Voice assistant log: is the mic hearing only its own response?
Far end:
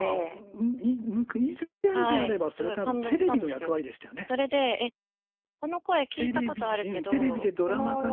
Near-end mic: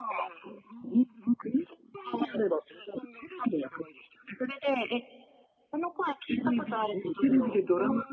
Yes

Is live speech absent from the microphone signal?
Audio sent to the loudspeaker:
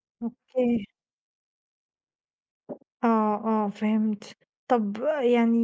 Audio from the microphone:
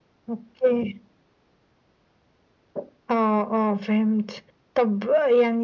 Yes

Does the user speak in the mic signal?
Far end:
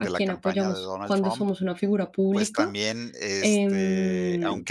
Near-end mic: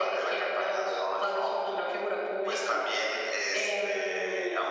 No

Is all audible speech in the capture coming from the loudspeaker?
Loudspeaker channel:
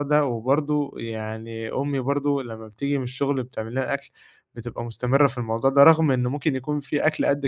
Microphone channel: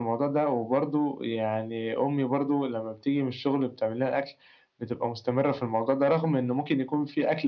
Yes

